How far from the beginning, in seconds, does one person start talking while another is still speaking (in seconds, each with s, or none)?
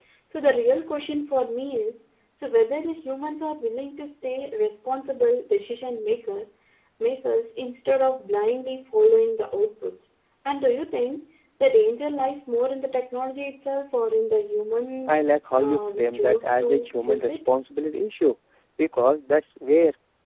15.6 s